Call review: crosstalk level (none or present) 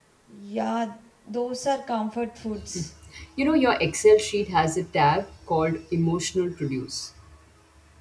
none